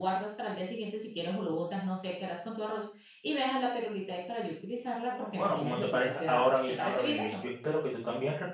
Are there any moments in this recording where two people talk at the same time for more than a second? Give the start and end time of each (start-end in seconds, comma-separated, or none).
5.1-7.3